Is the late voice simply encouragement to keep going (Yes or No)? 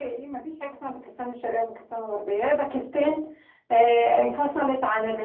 Yes